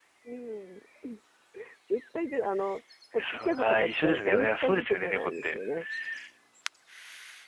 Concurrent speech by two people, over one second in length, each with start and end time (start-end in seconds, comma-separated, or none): 3.2-5.6